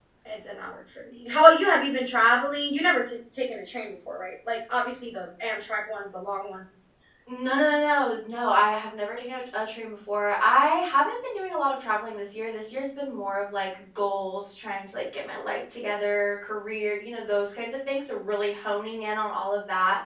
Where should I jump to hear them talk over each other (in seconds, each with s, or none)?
none